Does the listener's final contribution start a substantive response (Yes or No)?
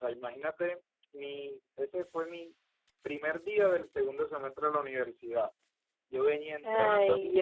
No